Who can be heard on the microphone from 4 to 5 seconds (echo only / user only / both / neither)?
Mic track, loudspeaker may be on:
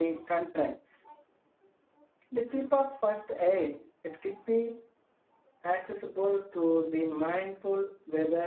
echo only